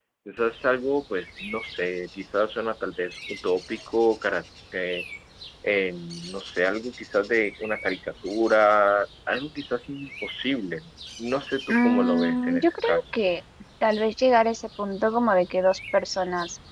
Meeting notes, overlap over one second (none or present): present